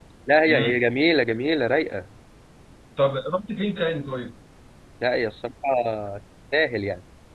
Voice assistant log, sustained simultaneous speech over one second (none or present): none